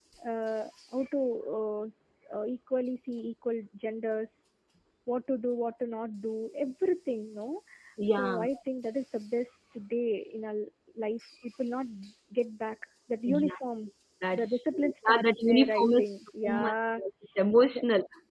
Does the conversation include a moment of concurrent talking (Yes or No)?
Yes